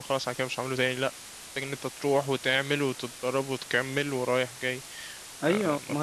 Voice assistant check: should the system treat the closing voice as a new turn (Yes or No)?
Yes